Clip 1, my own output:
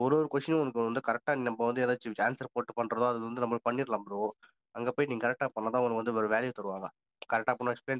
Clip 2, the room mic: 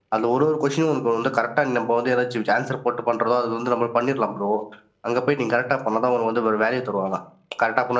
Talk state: echo only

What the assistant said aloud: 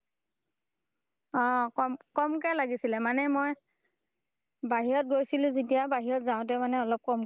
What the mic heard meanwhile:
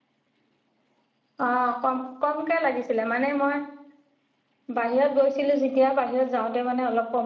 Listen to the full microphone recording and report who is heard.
echo only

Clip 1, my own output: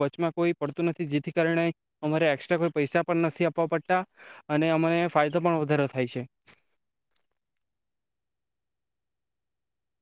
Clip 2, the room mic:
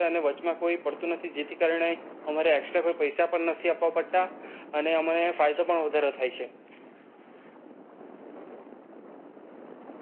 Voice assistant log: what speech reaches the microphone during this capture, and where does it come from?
echo only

